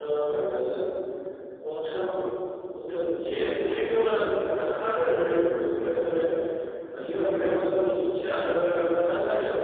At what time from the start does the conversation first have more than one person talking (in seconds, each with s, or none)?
none